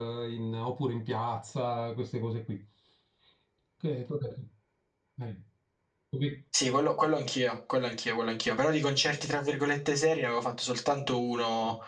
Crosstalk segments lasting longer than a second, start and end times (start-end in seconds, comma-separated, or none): none